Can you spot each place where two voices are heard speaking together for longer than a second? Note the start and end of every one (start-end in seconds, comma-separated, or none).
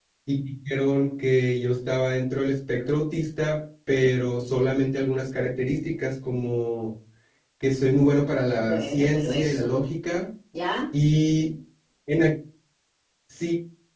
8.5-9.8